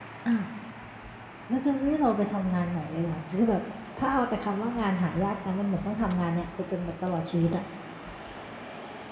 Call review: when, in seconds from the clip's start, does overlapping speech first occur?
none

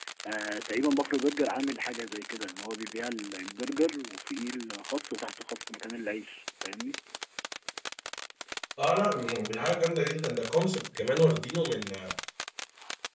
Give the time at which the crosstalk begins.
none

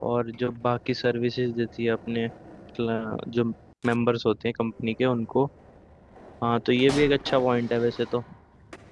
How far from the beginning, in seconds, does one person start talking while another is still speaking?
none

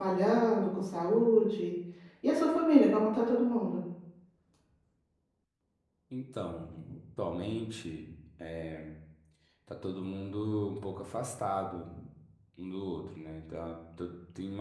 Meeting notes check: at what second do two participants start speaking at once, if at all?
none

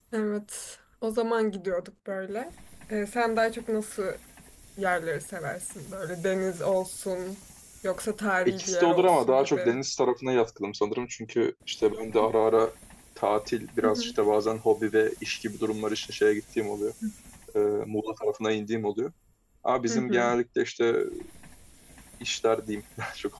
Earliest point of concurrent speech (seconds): 8.4 s

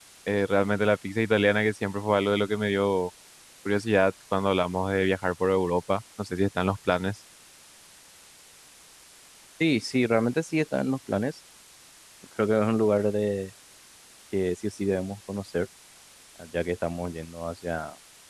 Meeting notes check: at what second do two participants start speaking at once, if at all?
none

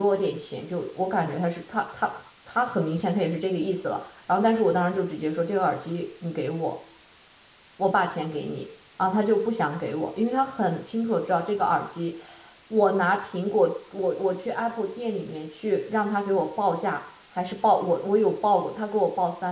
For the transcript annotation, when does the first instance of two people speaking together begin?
none

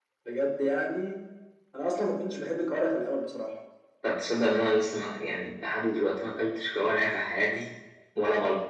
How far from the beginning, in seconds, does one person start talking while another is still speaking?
none

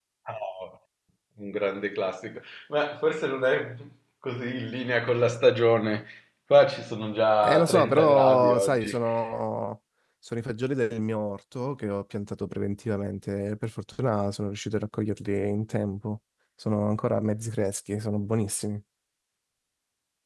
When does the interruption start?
7.4 s

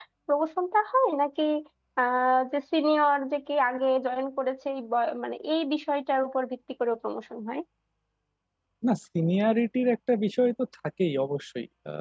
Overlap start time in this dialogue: none

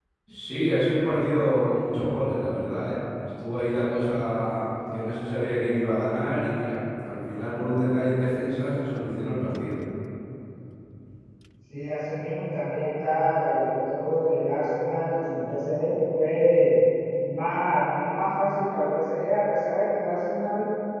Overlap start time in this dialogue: none

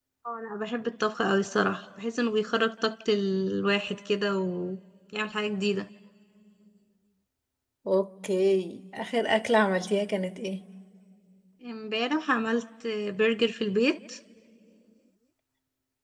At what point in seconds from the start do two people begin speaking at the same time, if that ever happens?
none

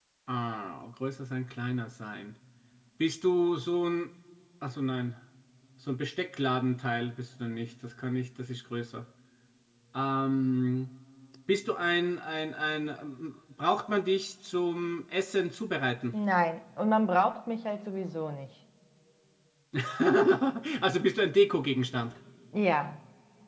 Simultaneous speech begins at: none

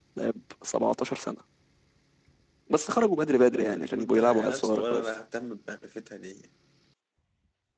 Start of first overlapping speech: 3.6 s

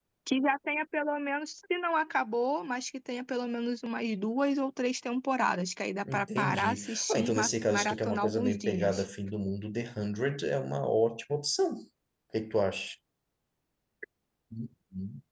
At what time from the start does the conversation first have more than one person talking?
6.0 s

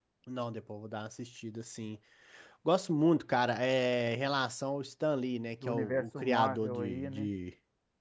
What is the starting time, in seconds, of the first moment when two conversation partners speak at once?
5.6 s

